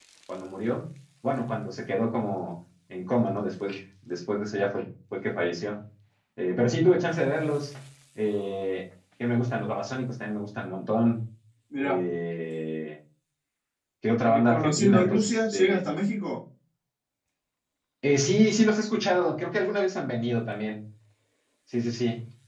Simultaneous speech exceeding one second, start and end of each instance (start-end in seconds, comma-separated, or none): 14.2-15.8